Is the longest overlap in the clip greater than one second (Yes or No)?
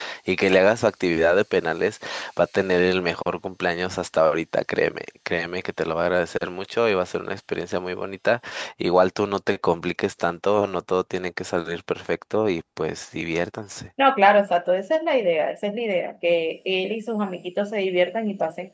No